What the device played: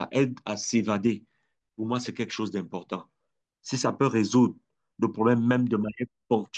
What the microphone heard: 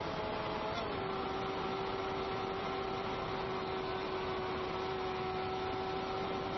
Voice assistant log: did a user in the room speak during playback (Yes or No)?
No